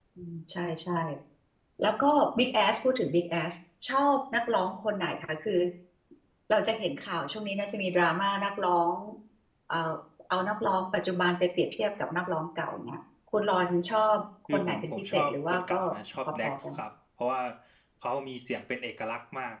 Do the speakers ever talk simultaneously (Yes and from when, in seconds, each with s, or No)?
Yes, from 14.5 s